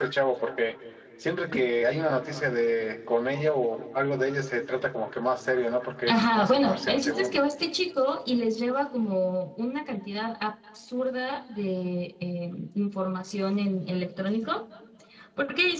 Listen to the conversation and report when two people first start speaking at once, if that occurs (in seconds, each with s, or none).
6.1 s